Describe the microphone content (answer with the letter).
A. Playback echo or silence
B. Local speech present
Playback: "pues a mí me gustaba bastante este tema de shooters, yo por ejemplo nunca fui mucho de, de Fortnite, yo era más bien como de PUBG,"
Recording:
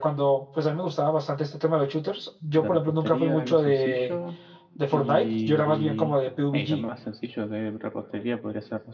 B